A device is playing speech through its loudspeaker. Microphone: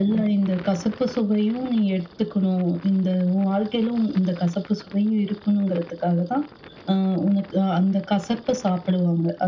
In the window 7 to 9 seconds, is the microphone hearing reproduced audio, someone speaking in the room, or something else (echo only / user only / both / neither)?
echo only